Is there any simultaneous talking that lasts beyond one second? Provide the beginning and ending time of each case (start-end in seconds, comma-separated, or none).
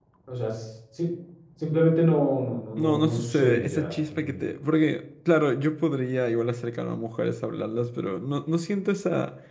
2.8-4.4